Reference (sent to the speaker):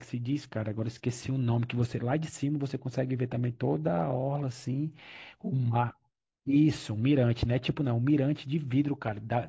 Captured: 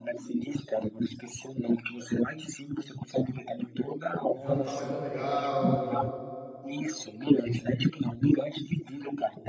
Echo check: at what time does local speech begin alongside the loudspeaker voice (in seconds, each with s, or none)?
4.4 s